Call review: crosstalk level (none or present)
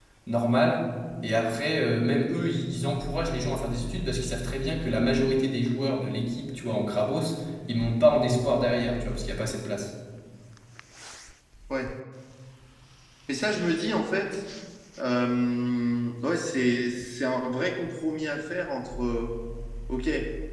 none